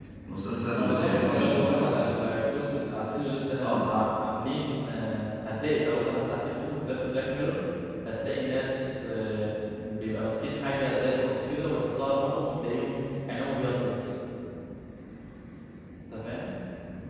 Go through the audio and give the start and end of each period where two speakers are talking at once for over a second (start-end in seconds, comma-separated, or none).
0.8-2.0